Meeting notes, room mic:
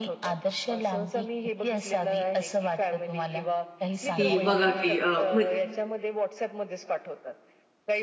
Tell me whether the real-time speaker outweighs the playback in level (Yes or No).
Yes